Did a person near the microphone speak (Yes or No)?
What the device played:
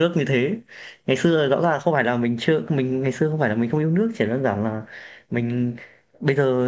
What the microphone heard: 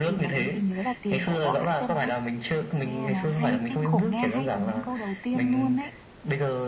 Yes